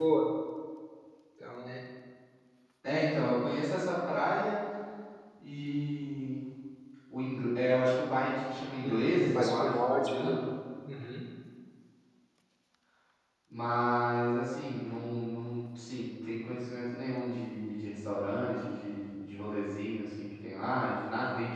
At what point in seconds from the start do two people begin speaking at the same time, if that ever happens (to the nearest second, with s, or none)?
9 s